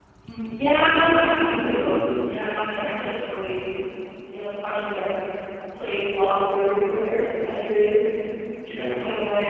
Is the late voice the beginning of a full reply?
No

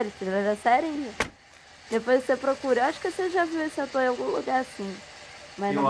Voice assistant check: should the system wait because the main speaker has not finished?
No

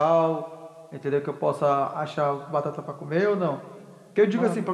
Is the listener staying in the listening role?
Yes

